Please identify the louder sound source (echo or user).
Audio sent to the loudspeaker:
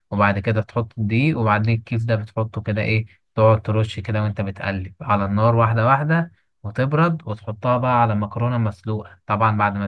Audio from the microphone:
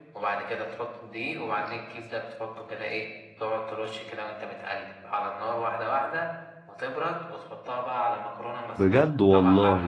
user